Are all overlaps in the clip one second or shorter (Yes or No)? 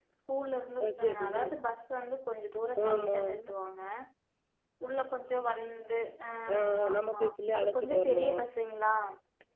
No